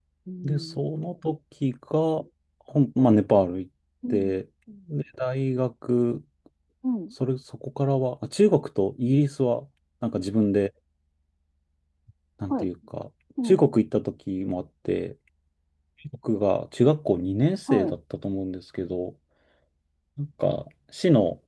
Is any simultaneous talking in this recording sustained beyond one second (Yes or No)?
No